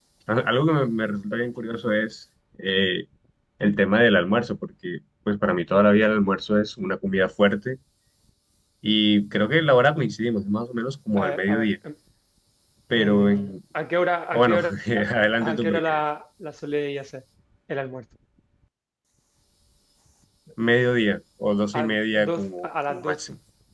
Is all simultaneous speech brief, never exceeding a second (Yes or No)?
No